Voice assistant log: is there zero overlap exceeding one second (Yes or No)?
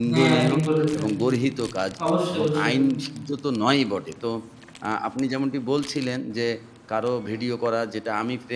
Yes